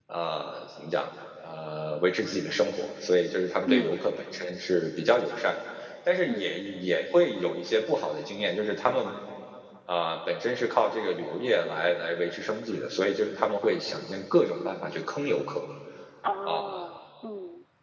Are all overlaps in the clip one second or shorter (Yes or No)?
Yes